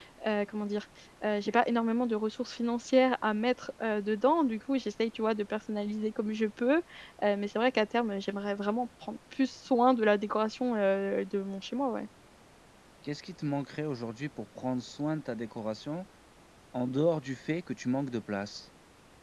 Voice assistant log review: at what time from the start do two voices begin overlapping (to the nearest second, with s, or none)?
none